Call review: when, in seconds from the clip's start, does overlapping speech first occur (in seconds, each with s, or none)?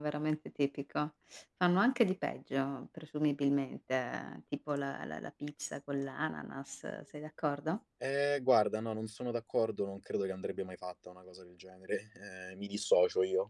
none